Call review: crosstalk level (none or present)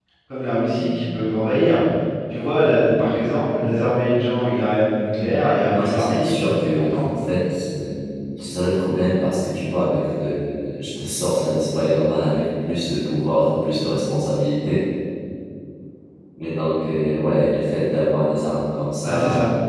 present